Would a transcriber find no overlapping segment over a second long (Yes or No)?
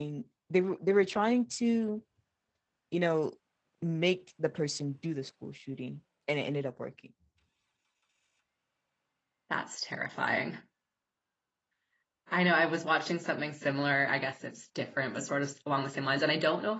Yes